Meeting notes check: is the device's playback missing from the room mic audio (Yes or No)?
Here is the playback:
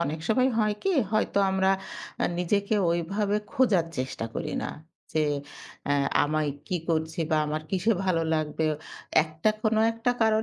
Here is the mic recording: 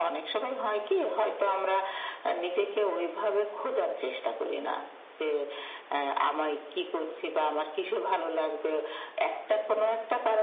No